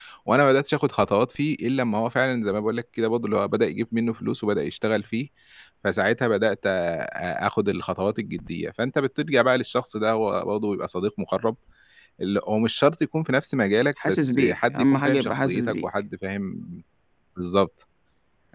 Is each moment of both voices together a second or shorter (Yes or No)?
No